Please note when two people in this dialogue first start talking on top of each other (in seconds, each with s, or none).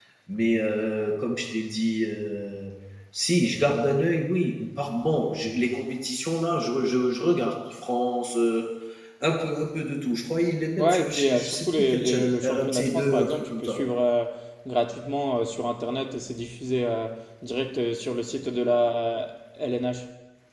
10.8 s